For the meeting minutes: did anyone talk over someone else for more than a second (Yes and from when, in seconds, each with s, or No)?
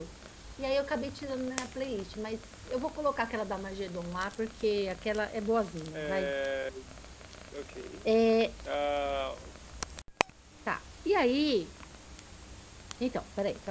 No